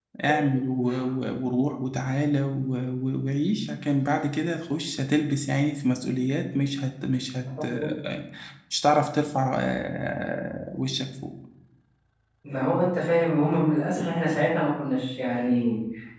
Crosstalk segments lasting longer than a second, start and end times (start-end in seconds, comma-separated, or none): none